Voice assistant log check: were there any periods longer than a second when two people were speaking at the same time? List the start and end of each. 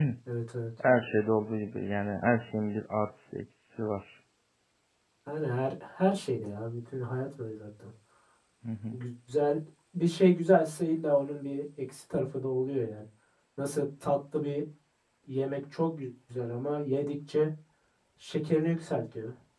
none

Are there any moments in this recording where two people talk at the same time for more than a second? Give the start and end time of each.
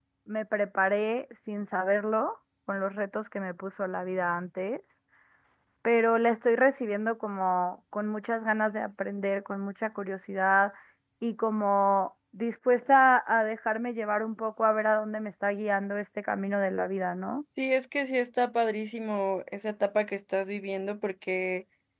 none

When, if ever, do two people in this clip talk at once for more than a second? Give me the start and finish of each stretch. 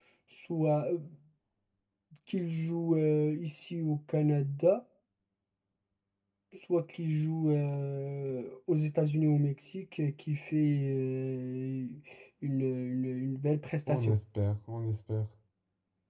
none

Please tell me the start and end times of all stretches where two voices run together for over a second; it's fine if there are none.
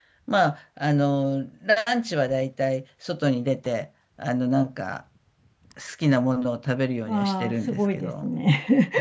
7.1-8.3

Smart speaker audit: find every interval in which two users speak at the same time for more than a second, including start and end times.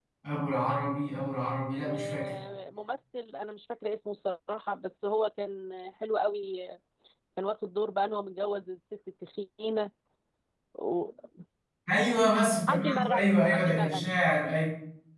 12.7-14.1

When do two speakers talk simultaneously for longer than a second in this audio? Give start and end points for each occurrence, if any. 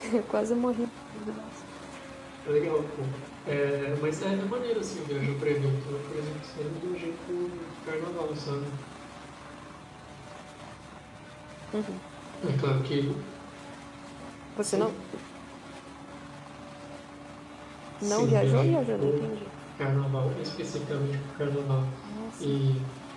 18.0-19.3

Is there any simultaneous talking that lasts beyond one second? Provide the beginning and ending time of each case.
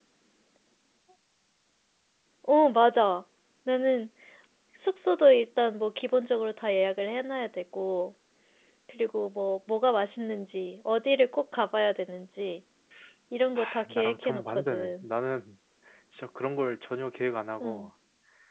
13.6-15.0

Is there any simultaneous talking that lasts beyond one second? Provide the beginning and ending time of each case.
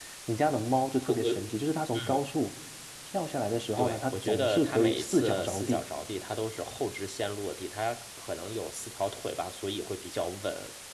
3.8-5.8

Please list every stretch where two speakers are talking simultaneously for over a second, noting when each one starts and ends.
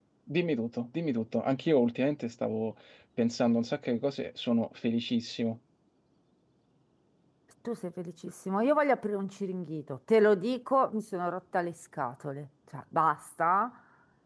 none

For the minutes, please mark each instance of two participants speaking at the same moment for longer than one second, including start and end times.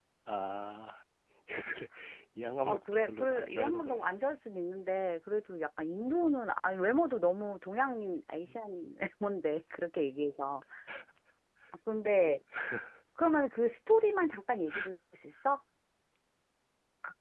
2.6-4.1

